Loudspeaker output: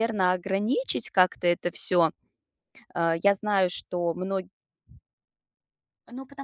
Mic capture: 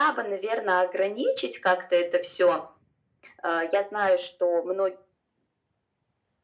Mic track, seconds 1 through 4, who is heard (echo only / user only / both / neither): echo only